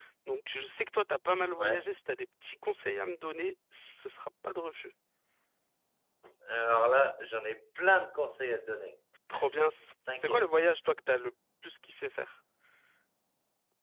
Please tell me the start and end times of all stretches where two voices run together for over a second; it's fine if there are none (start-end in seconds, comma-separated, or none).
none